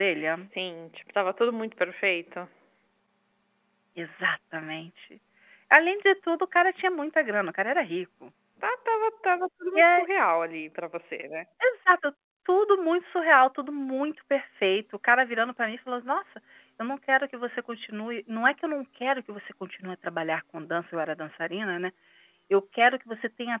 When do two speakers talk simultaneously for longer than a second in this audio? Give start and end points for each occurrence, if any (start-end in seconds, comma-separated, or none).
none